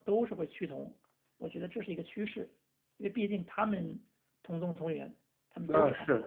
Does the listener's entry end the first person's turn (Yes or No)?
Yes